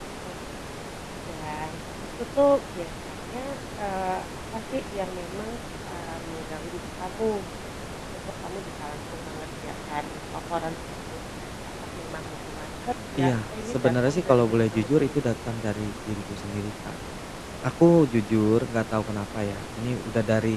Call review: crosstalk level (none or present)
present